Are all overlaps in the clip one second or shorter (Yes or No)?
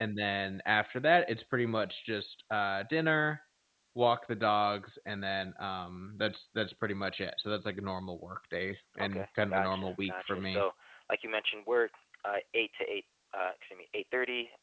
No